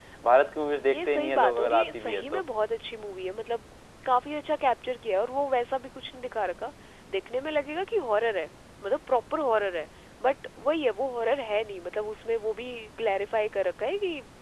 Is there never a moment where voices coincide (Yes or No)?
No